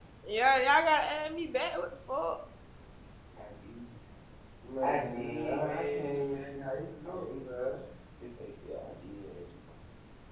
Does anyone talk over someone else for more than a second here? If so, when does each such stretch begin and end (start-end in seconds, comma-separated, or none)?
4.8-6.6